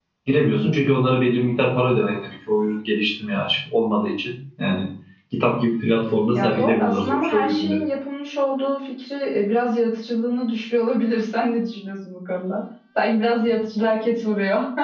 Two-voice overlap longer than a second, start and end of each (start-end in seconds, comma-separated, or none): 6.3-7.8